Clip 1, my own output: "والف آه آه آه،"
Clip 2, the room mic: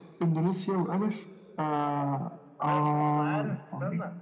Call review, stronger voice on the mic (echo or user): echo